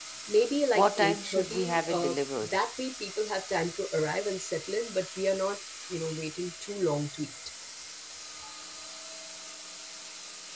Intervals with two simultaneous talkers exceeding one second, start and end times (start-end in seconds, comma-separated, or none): 0.8-2.6